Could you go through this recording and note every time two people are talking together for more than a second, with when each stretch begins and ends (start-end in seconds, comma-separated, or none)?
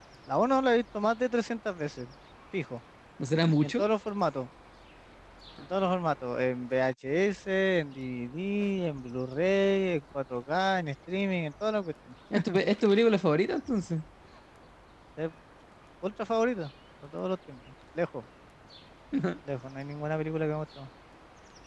none